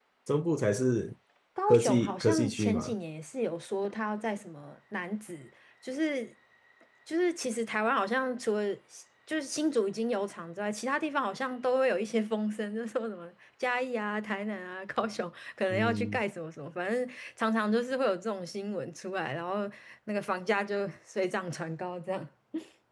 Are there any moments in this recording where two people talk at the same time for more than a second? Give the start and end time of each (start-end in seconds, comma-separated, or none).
1.7-2.9